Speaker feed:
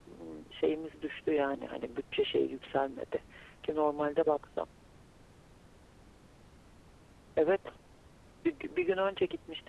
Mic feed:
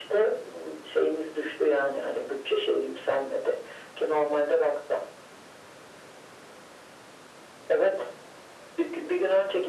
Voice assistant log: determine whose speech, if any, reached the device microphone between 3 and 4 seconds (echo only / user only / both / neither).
echo only